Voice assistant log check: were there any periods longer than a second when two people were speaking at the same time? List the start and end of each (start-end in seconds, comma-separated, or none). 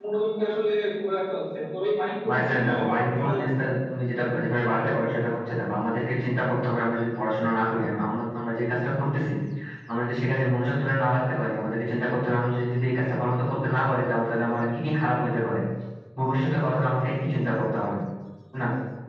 2.3-3.8